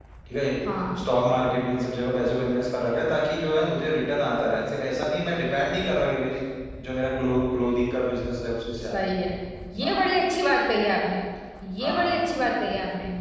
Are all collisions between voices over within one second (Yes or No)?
Yes